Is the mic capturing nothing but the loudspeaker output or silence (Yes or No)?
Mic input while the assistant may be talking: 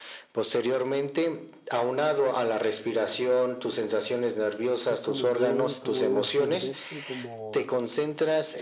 No